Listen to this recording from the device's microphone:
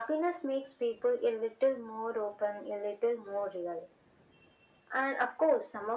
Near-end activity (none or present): none